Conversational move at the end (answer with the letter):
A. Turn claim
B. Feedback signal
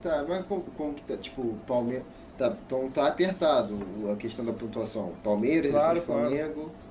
A